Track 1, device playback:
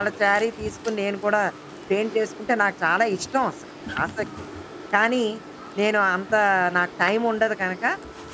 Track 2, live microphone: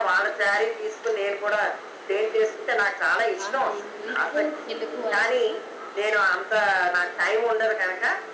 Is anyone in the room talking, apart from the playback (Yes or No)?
Yes